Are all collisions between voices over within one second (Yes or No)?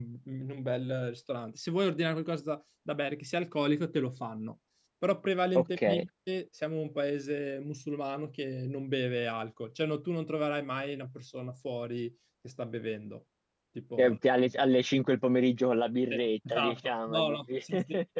No